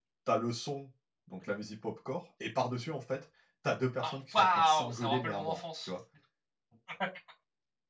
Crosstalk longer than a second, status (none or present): present